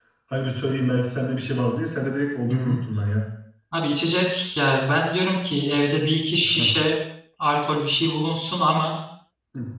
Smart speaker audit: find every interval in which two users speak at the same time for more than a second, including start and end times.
none

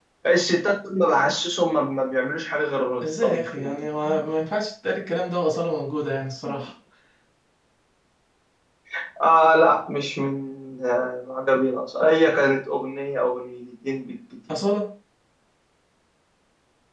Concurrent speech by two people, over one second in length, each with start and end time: 3.0-4.3

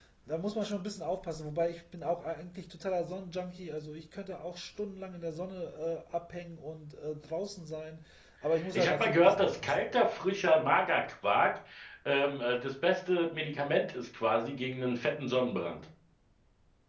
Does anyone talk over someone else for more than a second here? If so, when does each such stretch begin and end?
8.7-10.1

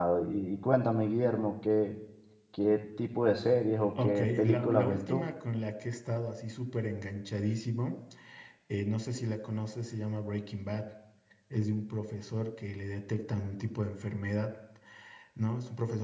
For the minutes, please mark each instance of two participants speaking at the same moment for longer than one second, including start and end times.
4.0-5.3

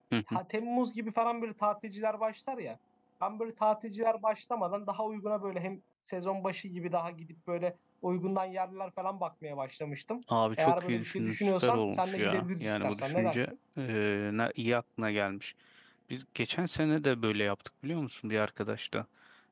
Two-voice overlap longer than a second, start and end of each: 10.6-13.5

